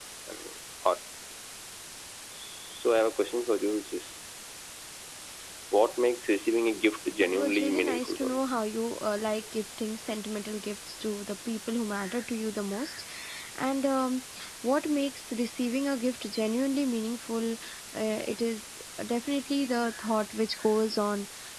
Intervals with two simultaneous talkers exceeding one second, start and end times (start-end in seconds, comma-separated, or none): 7.2-8.4